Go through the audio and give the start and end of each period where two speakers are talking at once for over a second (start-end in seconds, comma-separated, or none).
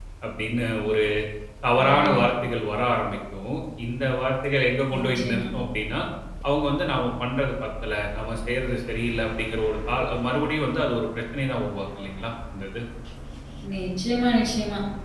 none